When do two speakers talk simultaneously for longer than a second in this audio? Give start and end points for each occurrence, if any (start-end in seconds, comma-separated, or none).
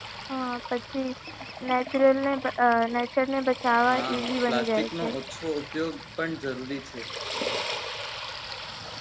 3.9-5.1